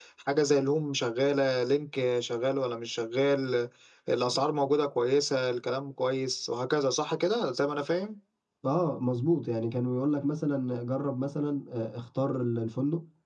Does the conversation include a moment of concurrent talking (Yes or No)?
No